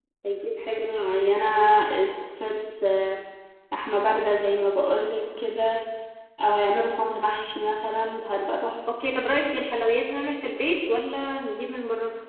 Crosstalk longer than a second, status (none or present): none